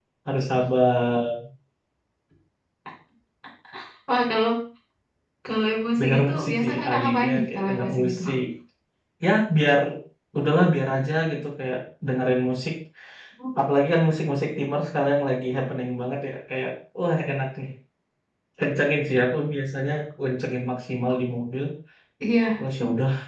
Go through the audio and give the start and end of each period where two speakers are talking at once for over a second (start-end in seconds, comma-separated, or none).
6.0-8.2